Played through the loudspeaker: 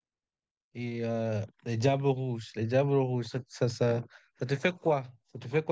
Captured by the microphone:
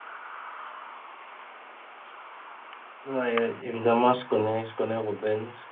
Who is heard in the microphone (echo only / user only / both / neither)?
user only